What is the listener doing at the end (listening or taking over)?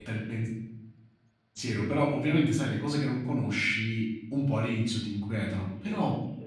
listening